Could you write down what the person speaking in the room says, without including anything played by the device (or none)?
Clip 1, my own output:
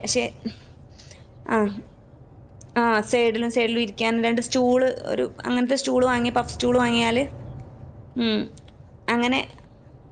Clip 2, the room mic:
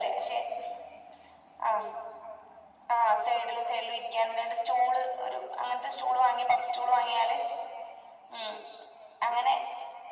none